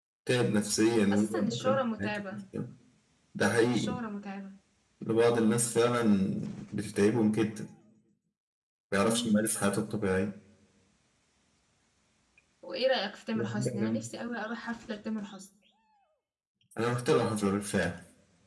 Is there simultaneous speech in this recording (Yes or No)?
Yes